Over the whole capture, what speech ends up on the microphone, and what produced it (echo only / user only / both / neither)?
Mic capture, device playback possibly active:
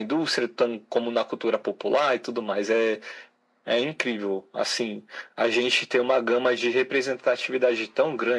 echo only